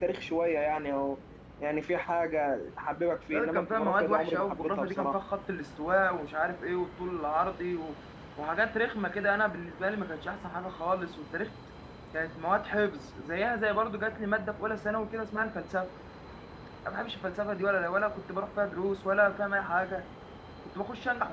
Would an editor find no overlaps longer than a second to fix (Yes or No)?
No